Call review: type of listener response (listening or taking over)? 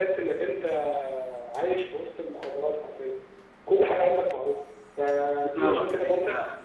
taking over